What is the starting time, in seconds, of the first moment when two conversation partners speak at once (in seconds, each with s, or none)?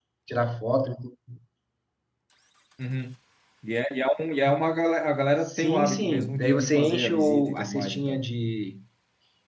5.5 s